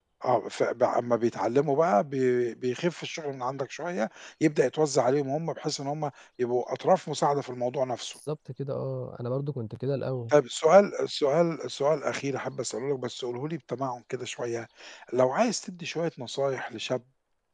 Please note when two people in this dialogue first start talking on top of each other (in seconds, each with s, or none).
none